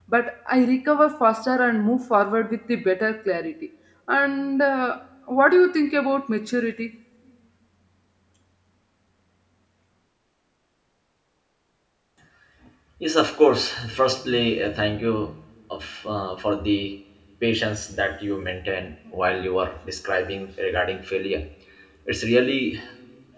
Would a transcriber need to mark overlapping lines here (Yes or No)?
No